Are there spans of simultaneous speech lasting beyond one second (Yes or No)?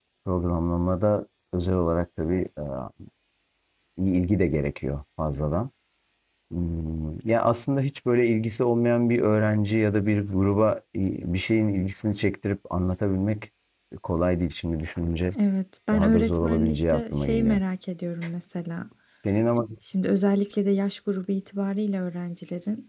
Yes